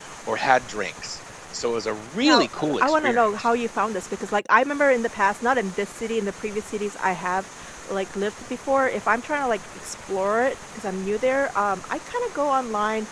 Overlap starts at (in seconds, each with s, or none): 2.2 s